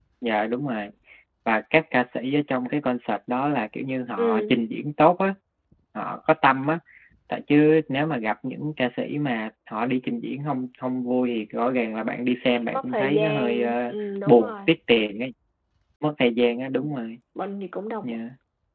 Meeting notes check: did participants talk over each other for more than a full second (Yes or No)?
Yes